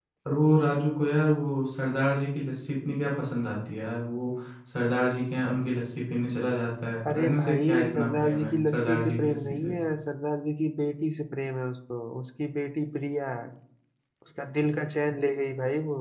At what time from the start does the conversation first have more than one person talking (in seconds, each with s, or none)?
7.0 s